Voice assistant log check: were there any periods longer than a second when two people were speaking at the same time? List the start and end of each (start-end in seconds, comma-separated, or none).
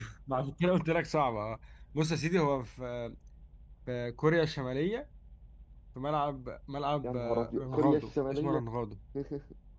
7.0-8.6